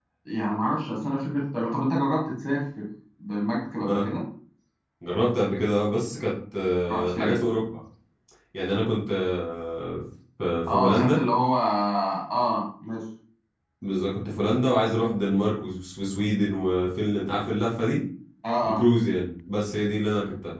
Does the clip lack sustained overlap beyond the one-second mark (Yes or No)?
Yes